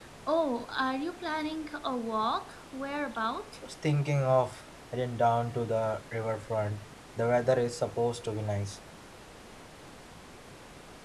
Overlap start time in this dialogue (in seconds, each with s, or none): none